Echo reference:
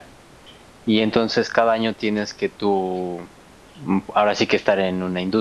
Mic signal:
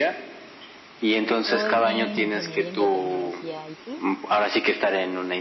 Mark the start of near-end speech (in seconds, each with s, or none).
1.2 s